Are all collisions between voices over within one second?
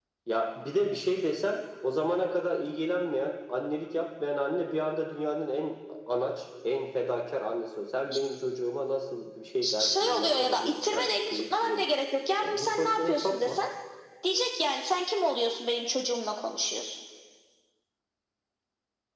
No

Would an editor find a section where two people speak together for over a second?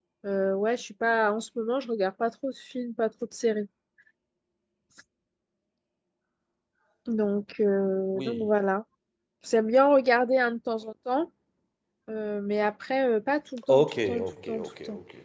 Yes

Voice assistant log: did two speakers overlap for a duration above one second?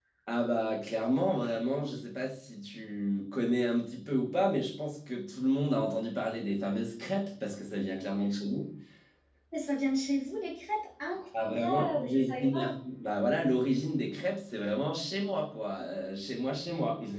Yes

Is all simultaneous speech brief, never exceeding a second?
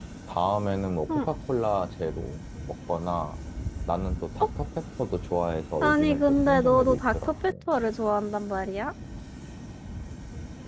No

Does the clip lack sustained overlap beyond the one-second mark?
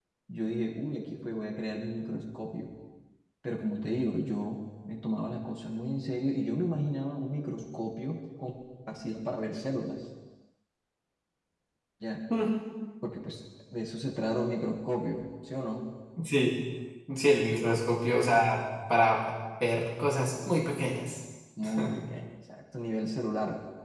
Yes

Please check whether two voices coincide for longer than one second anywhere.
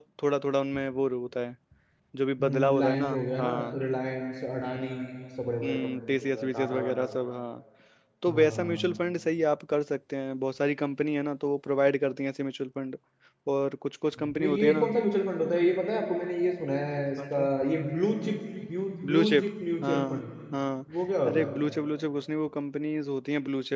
Yes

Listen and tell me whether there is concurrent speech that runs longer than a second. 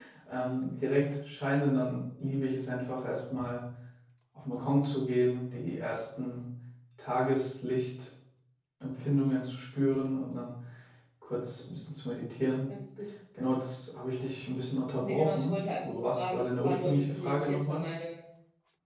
Yes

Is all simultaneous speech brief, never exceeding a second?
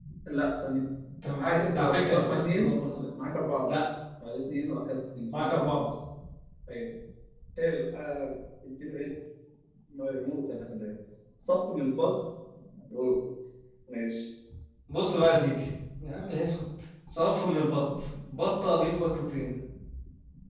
No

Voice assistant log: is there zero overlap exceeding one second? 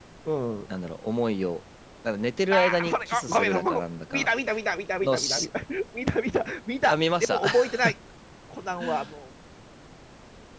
No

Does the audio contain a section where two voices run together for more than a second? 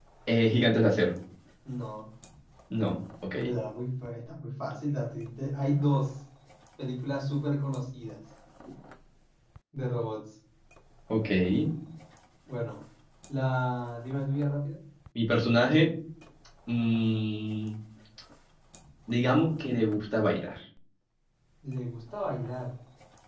No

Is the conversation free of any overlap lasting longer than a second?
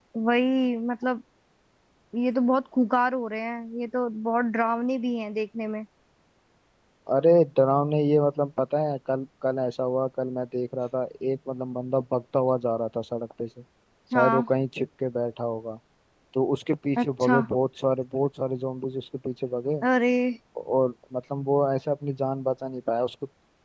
Yes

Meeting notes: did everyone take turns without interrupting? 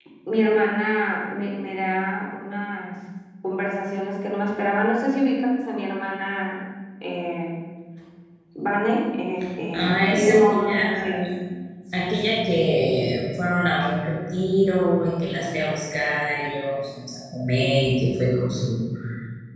No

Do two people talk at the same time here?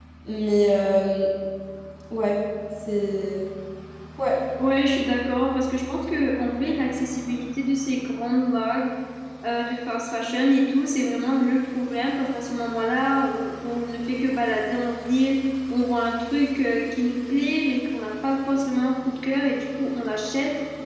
No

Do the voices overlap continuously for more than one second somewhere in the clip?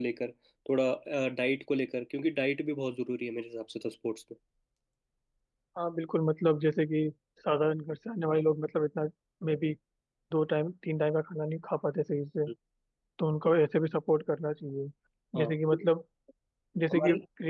No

